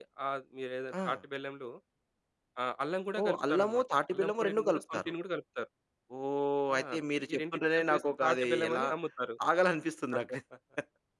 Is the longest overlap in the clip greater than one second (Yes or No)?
Yes